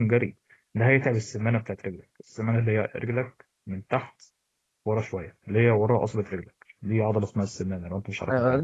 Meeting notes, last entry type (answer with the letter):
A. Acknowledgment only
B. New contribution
B